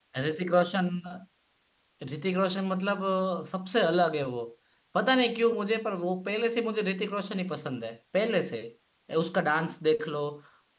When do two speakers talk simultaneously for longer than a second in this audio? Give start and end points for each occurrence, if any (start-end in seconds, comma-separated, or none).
none